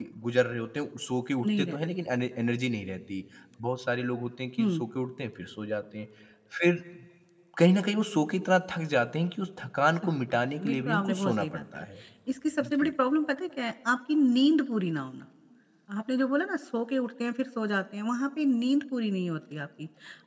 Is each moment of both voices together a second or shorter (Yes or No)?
No